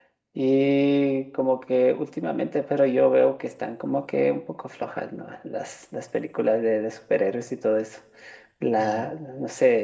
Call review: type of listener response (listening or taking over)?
listening